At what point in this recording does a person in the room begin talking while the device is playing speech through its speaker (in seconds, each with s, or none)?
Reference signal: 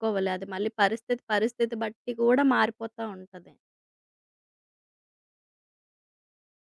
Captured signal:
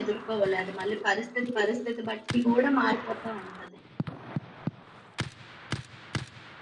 none